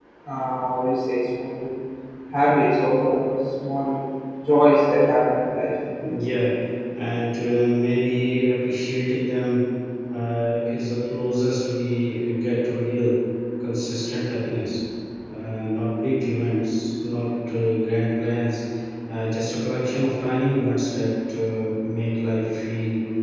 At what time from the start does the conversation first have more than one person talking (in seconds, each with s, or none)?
none